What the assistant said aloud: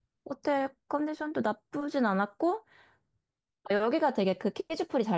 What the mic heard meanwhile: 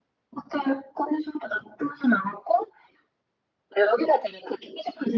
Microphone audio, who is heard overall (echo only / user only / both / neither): echo only